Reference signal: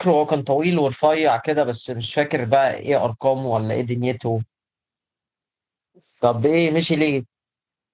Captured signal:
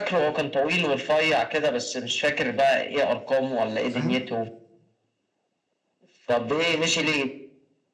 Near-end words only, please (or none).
فاهم